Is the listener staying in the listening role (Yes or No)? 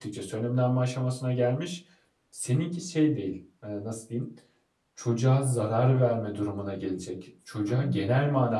Yes